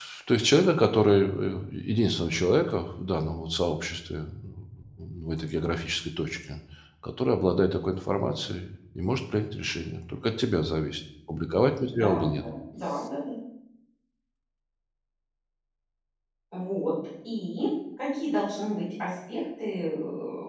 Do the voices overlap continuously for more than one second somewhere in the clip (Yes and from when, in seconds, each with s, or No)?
No